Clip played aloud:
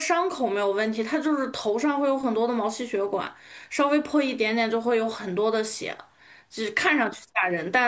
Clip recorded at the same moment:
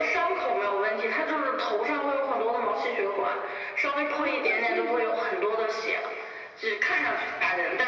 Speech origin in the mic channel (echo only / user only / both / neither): both